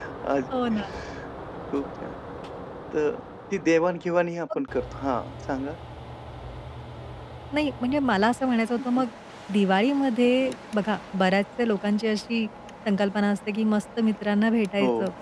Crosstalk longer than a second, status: none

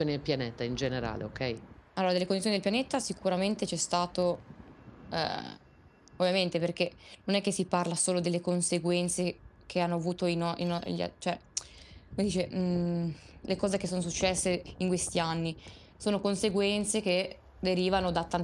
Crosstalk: none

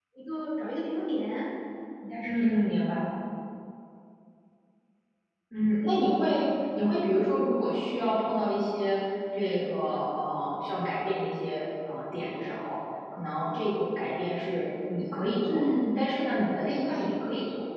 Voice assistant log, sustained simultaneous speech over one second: none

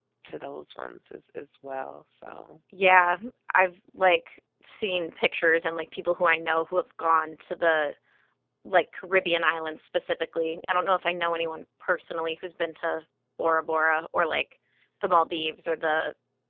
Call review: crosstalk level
none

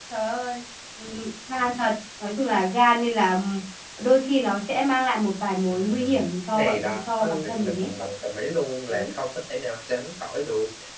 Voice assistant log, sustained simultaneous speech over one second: present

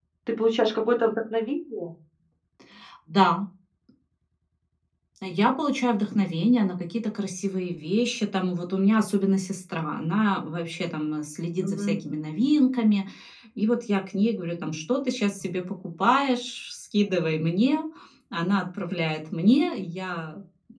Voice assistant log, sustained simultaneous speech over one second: none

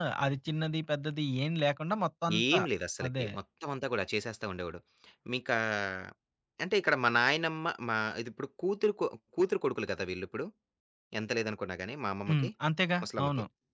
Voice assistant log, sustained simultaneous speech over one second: none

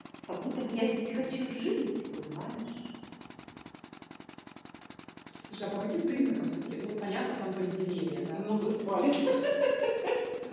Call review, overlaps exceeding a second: none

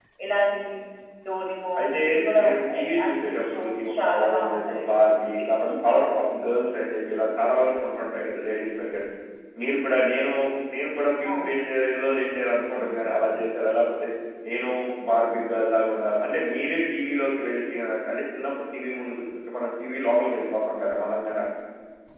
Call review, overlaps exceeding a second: present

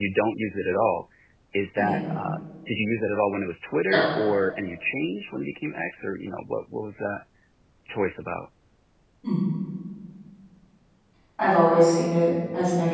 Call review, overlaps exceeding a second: none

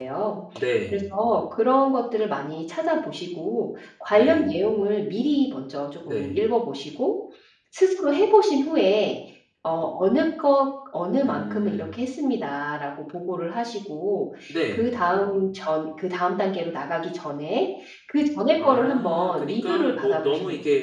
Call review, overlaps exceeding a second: present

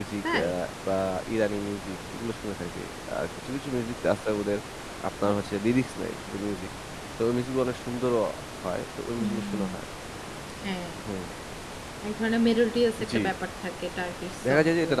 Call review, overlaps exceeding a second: none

